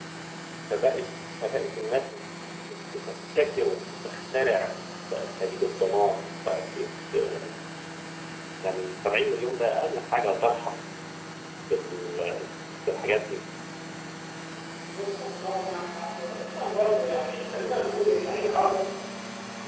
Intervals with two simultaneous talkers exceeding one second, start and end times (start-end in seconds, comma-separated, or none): none